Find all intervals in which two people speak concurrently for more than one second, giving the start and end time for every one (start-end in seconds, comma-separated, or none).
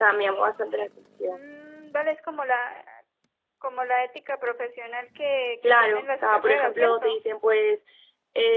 5.6-7.2